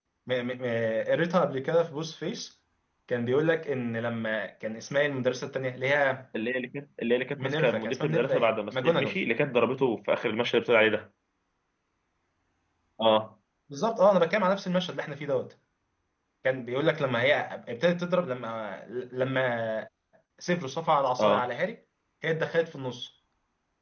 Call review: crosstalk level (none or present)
present